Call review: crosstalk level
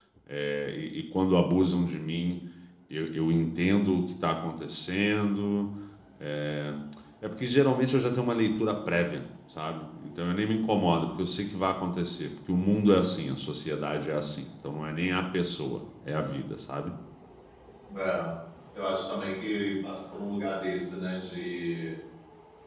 none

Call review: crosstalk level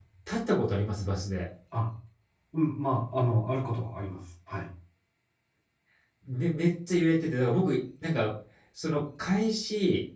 none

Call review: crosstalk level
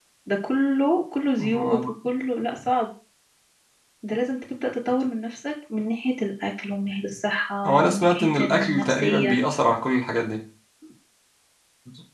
present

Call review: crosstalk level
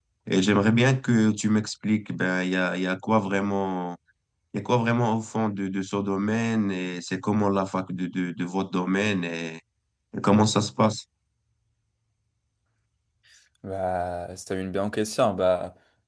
none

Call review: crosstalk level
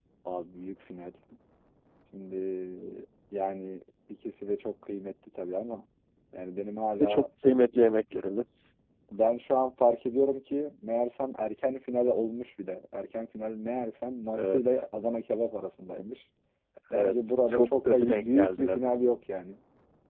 present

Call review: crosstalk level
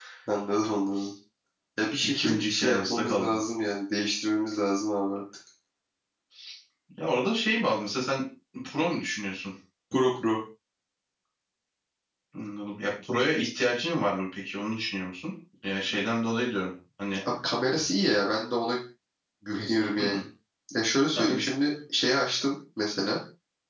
present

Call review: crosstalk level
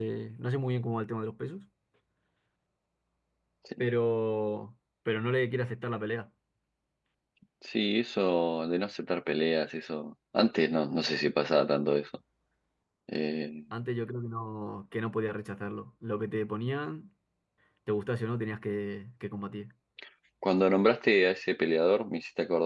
none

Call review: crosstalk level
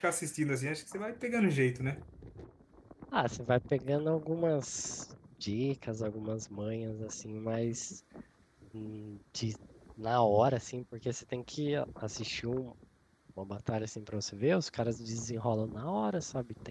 none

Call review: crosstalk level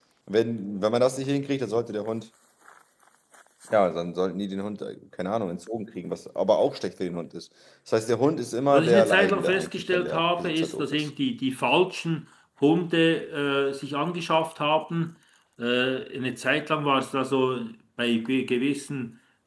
present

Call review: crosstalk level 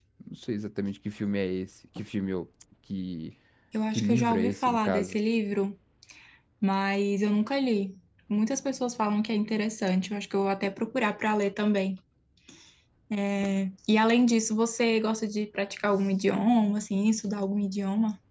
present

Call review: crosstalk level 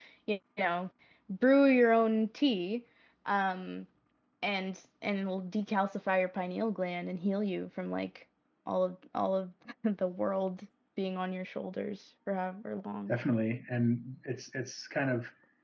none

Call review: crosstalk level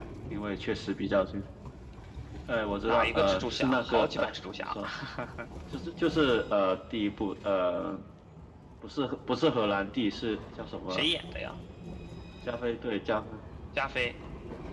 present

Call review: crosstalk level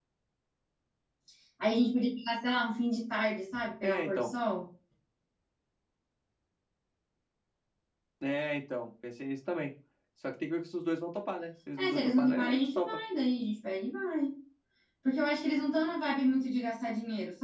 present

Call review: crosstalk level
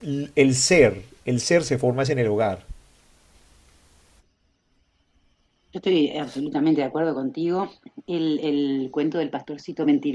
none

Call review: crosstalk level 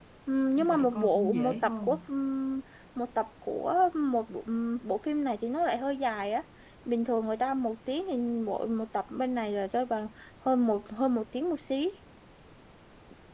present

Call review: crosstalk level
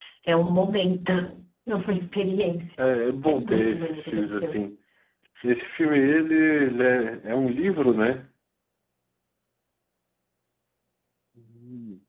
present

